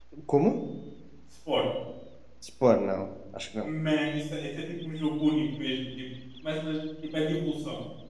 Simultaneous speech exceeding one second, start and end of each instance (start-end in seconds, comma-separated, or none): none